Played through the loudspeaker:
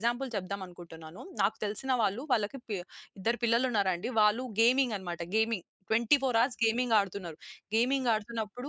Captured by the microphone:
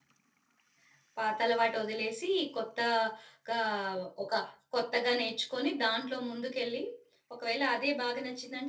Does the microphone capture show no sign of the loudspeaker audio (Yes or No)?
Yes